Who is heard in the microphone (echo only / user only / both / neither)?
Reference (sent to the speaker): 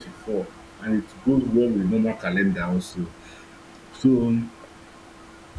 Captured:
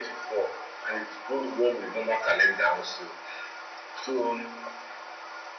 echo only